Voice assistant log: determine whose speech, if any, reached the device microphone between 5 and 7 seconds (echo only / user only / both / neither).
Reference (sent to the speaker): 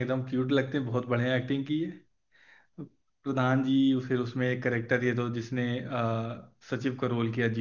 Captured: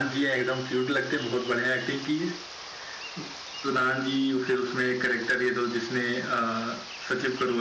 echo only